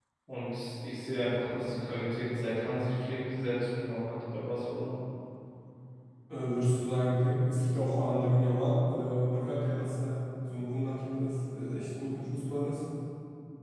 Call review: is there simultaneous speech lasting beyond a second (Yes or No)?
No